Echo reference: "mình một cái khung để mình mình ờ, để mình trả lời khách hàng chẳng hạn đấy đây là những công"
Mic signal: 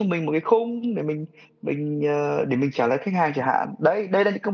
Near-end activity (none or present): none